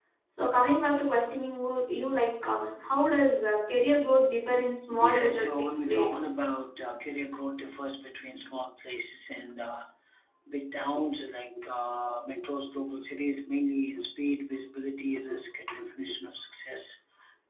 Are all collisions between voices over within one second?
No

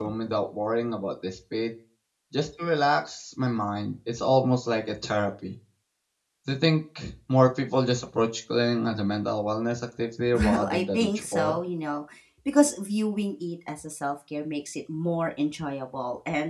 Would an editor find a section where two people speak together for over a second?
Yes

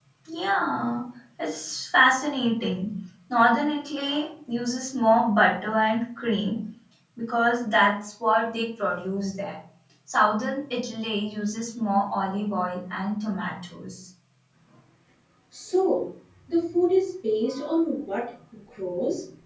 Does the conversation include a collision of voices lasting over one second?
No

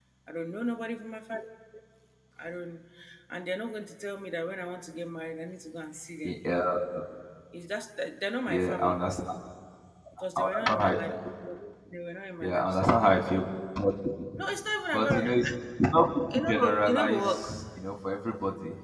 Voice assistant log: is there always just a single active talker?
No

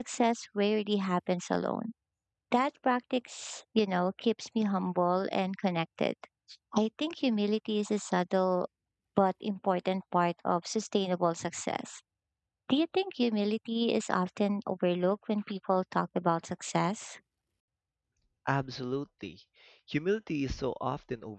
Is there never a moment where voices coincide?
Yes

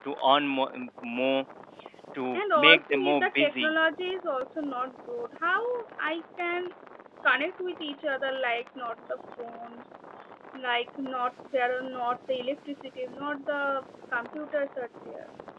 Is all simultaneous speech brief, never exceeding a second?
No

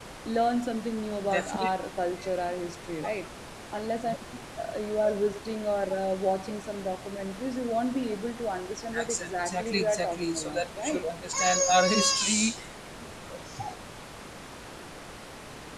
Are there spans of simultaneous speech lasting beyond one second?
Yes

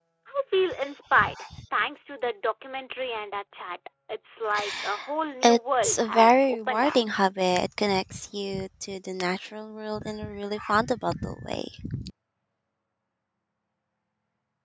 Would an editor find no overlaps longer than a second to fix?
No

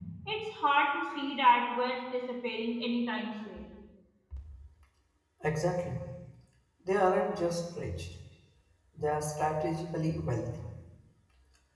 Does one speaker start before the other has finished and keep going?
No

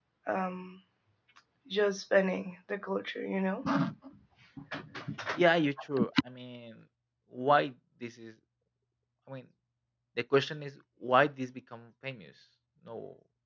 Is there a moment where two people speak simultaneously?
No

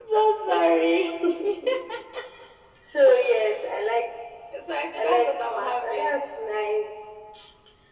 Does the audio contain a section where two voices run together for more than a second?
Yes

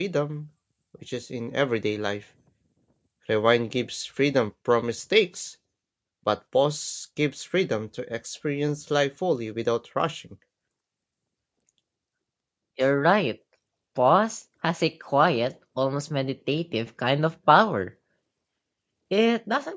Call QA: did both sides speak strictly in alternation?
Yes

